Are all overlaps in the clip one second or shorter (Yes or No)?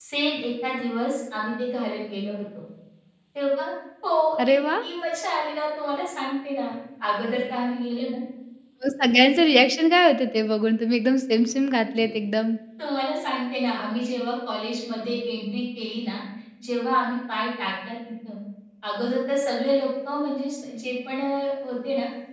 Yes